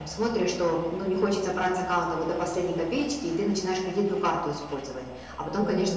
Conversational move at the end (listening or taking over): listening